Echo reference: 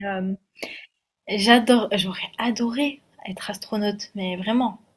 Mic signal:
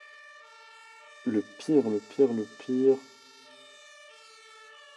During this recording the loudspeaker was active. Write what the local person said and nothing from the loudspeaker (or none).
le pire, le pire, le pire